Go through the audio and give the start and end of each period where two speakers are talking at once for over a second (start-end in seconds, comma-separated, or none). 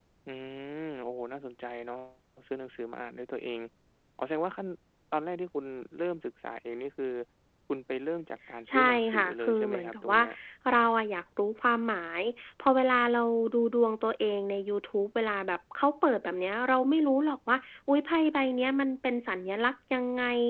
8.7-10.2